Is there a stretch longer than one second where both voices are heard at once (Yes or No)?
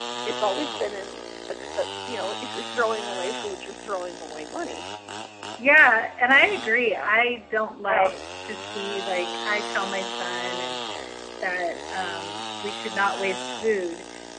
No